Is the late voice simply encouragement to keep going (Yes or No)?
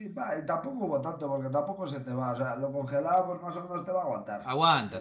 No